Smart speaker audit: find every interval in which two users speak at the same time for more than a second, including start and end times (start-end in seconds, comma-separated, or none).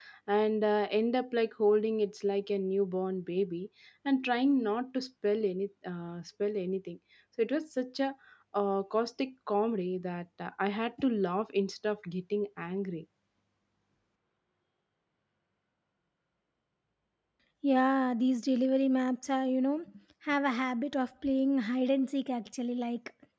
none